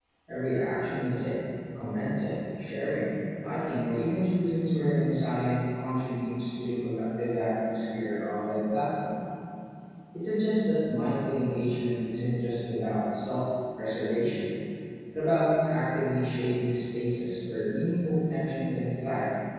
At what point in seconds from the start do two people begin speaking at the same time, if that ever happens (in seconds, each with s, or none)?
none